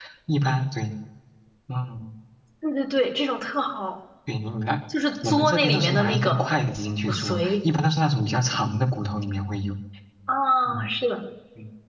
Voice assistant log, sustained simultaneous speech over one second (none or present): present